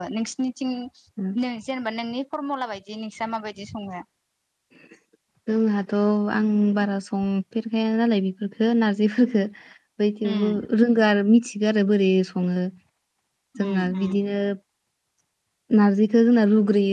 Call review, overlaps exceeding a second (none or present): none